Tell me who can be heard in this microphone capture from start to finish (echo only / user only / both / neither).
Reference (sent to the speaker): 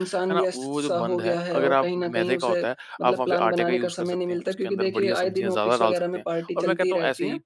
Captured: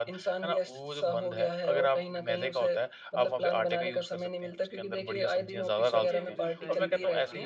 both